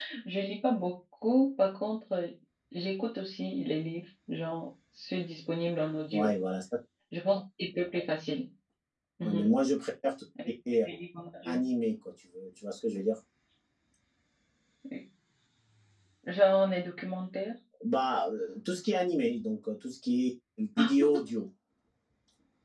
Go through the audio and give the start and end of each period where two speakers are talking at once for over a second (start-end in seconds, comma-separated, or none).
none